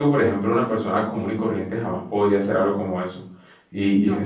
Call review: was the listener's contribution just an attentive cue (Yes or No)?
Yes